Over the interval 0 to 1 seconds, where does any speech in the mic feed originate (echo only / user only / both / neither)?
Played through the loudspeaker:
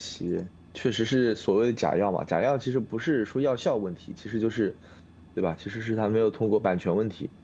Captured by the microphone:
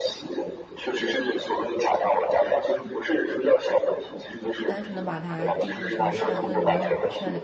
echo only